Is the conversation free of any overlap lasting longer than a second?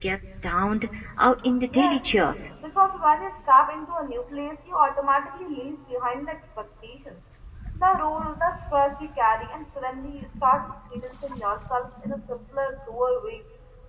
Yes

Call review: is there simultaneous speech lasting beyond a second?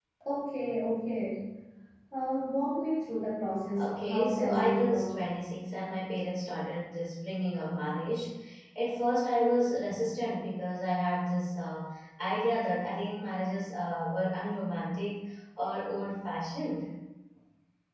Yes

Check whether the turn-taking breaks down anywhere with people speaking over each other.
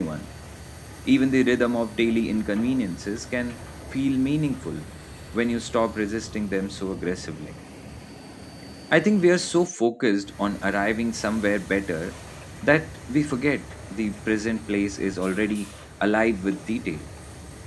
No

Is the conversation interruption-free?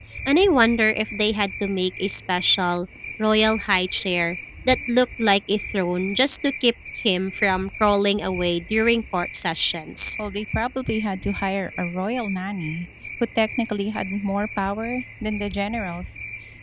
Yes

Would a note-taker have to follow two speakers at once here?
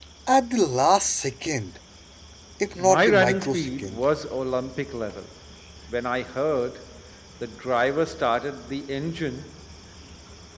Yes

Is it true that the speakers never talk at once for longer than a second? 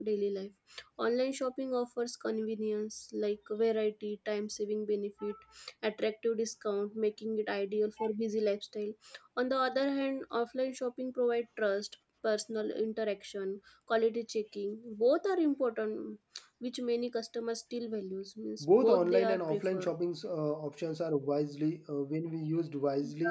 No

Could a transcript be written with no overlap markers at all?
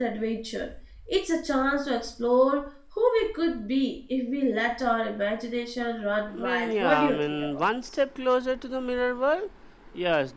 No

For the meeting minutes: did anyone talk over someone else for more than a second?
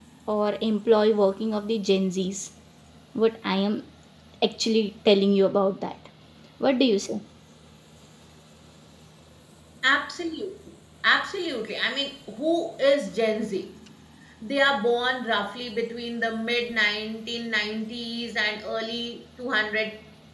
No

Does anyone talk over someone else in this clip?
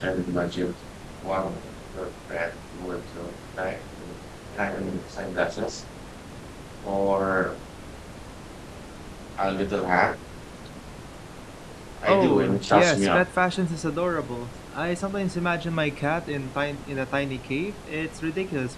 Yes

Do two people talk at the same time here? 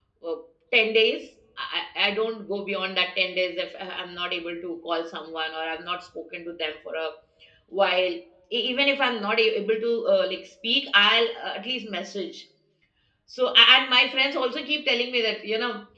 No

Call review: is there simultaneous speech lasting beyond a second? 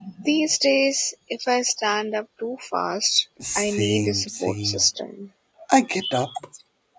Yes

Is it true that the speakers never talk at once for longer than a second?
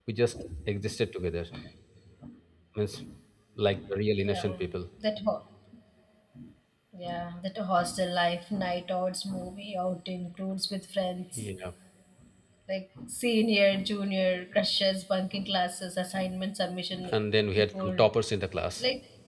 Yes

